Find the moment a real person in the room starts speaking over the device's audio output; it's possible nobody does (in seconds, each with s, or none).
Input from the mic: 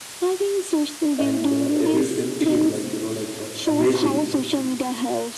1.2 s